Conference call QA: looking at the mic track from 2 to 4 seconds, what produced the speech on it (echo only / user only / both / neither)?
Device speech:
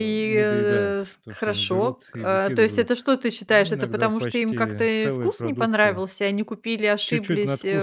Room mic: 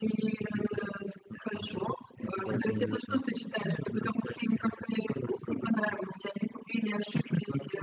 both